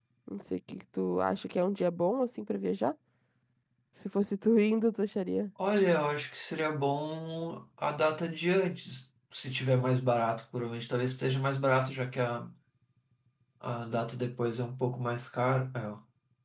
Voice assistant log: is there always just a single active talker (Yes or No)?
Yes